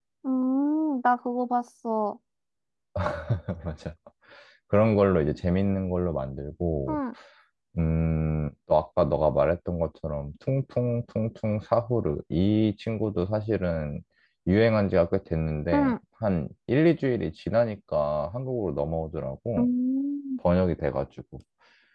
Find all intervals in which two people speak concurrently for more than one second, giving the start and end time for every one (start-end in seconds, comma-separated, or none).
none